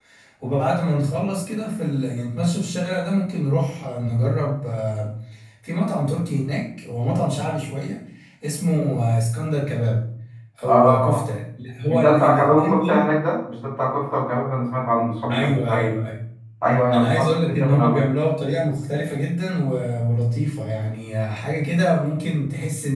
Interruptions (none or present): present